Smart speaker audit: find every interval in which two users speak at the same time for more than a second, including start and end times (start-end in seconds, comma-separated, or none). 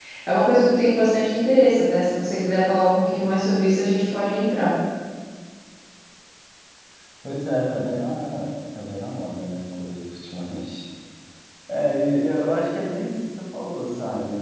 none